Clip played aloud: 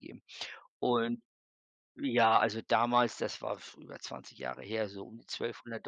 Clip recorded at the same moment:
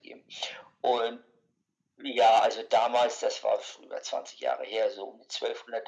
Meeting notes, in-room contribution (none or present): none